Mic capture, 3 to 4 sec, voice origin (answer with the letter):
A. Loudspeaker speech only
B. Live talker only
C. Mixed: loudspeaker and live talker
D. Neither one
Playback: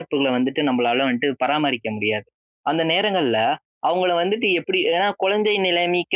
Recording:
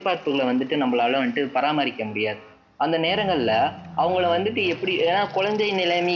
A